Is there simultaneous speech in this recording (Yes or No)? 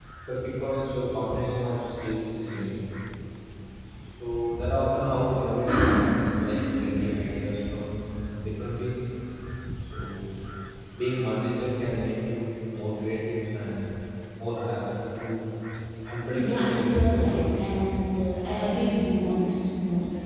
Yes